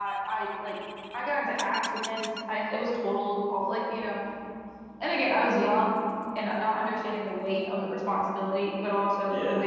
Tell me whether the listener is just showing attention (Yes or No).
Yes